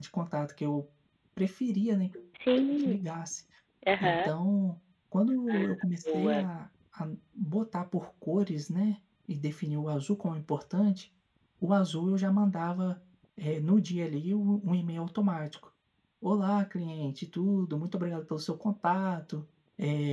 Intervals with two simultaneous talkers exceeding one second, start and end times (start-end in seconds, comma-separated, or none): none